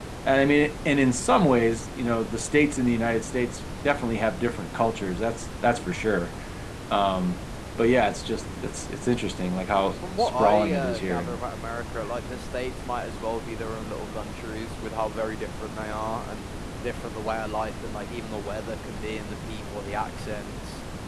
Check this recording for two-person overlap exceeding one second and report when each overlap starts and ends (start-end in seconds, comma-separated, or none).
10.2-11.4